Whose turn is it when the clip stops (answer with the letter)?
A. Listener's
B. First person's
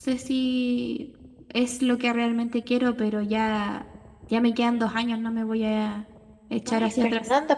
A